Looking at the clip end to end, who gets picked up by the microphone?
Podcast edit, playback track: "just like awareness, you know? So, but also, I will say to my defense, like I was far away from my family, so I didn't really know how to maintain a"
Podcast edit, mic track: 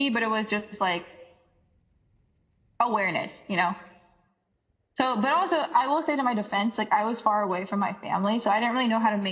echo only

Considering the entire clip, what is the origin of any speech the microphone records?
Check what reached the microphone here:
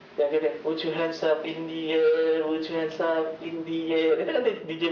echo only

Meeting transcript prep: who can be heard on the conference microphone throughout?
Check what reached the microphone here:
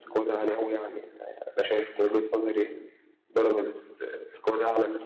echo only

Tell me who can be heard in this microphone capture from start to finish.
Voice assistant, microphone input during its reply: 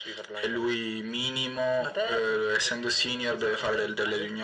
echo only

